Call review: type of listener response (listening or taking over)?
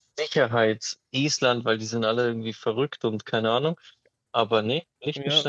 taking over